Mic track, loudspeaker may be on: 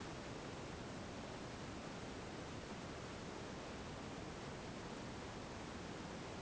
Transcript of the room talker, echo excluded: none

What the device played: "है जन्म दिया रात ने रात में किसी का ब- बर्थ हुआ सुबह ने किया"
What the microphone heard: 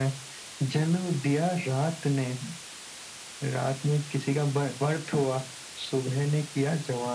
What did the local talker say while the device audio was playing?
none

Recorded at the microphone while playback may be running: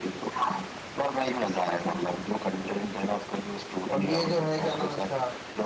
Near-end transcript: और ये जो है क्या नाम उसका

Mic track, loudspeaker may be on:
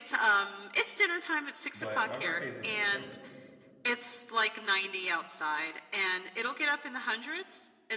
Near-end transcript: But my birthday's in December.

